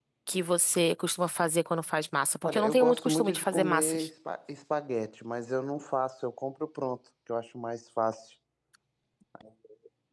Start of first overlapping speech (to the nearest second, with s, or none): 2 s